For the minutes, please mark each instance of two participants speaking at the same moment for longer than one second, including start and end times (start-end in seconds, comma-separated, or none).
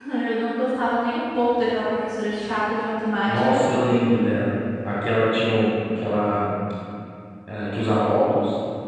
none